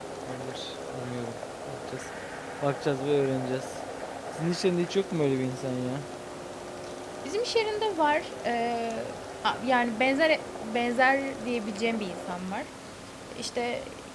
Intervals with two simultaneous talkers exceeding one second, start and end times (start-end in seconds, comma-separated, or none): none